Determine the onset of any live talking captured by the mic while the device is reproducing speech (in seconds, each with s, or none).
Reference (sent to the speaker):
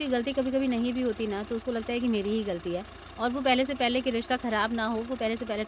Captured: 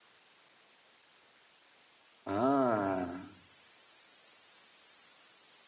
2.2 s